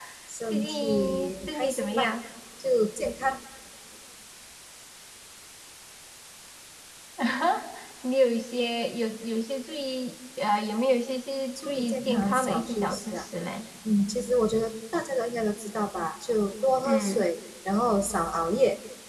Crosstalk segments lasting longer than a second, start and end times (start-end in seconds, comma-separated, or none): 0.5-2.1, 11.6-13.3